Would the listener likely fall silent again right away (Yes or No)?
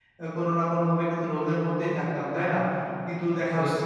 Yes